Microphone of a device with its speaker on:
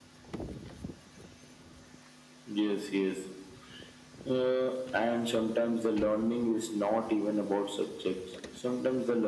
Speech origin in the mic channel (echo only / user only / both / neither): echo only